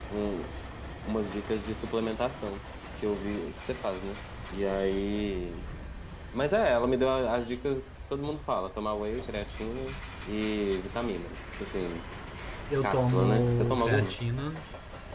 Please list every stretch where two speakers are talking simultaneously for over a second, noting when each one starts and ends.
12.8-14.2

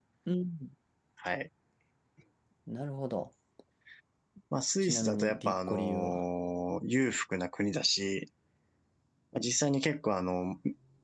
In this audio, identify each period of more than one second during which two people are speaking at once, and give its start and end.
4.8-6.2

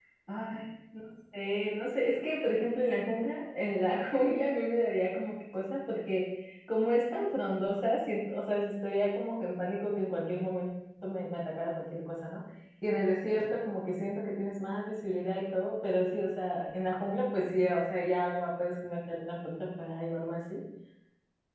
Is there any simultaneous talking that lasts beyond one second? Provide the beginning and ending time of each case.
none

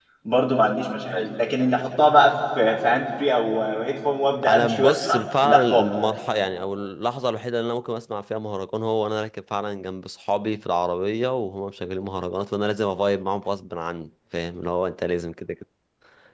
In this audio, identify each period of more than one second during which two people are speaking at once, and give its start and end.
4.5-5.9

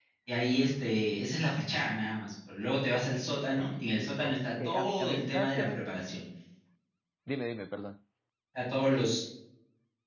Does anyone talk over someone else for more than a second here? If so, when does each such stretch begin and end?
4.2-5.9

